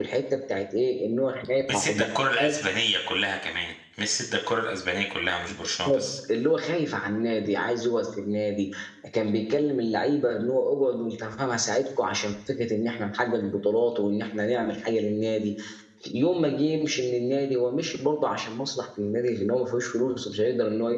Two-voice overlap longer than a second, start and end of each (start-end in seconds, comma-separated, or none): none